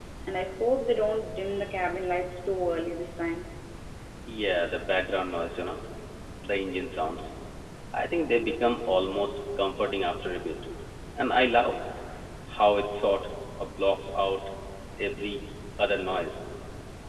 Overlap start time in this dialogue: none

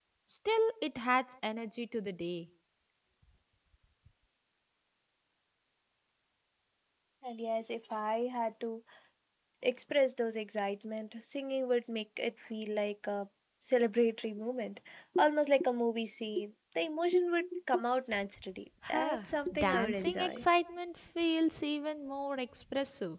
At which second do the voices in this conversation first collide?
18.8 s

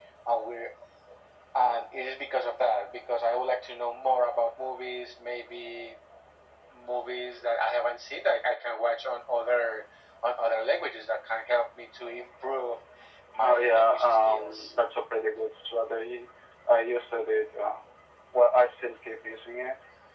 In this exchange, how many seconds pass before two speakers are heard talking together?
13.4 s

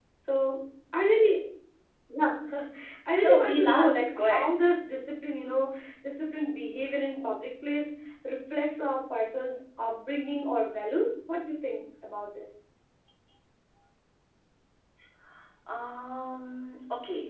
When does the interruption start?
3.2 s

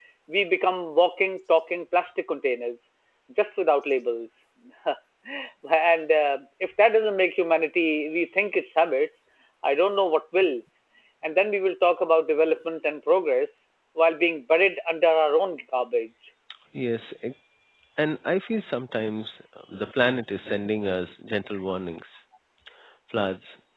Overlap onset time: none

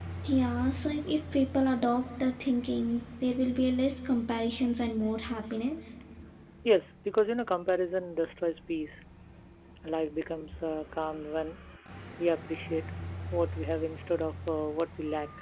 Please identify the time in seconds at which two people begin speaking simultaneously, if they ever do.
none

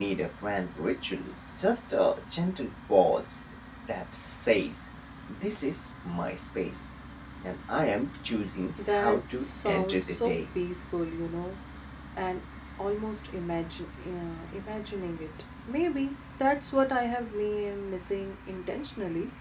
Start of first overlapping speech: 8.8 s

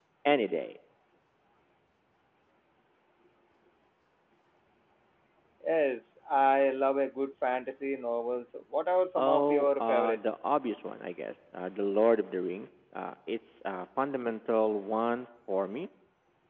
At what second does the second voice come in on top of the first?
9.2 s

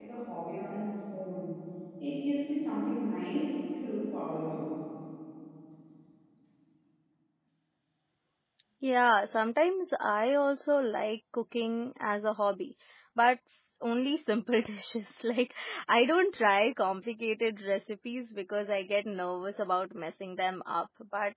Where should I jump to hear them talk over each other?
none

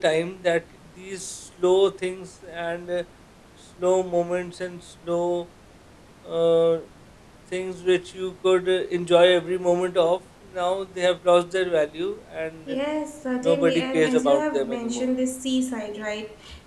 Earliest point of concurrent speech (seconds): 13.4 s

